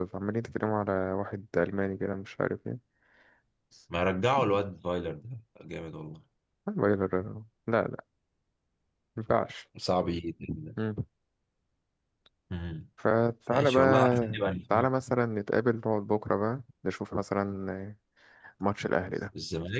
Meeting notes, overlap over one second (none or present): present